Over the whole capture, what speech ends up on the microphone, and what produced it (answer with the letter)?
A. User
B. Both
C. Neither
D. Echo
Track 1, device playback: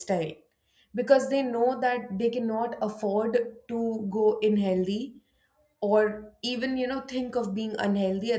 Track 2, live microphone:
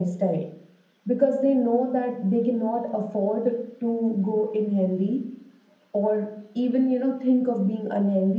D